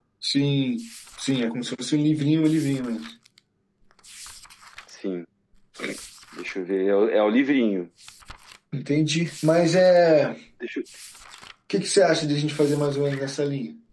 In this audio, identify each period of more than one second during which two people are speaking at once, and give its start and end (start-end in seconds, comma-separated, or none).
none